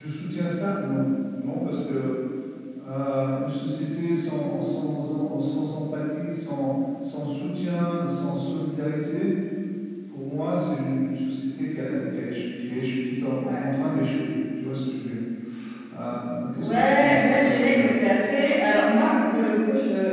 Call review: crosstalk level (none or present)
present